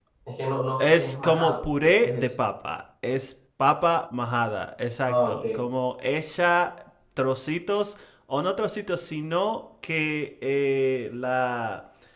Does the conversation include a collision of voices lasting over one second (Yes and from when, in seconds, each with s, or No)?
Yes, from 0.8 s